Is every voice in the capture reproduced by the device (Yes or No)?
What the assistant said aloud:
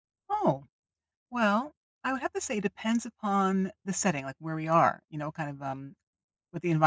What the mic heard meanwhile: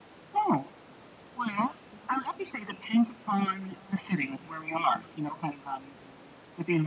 Yes